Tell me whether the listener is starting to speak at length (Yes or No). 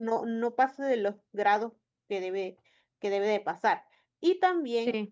No